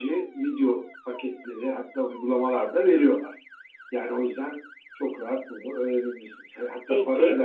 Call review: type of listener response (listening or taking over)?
listening